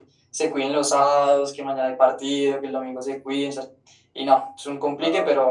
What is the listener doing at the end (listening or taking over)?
listening